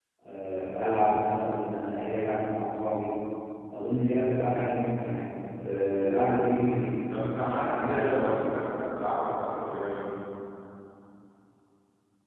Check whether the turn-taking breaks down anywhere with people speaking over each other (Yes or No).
Yes